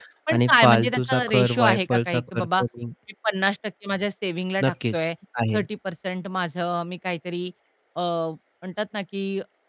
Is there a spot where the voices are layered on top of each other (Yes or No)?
Yes